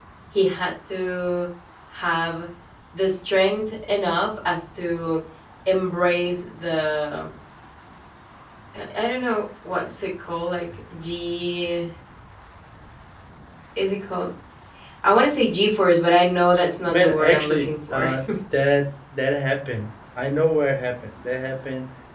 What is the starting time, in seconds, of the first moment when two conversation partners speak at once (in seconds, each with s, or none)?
16.9 s